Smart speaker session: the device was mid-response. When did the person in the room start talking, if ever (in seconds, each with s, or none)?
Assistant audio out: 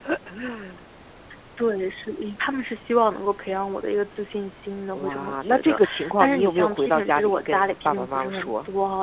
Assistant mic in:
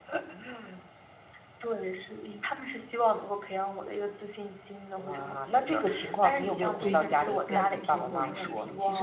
6.8 s